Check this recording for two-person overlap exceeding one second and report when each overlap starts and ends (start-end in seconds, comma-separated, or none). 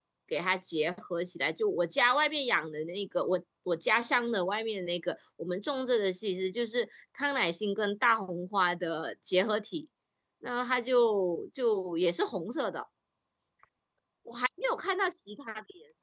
none